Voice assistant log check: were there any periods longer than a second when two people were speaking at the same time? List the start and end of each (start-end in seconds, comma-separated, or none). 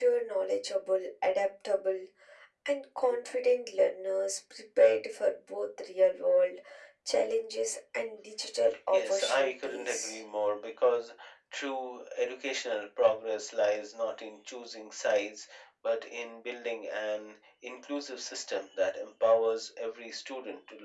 8.9-10.2